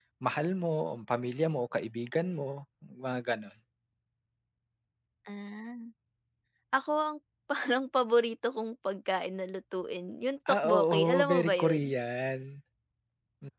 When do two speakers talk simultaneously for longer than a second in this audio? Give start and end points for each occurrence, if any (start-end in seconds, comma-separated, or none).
10.5-11.8